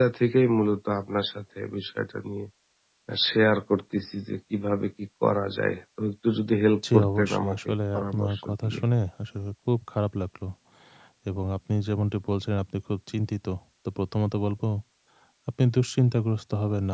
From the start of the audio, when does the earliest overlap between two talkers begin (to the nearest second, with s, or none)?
7 s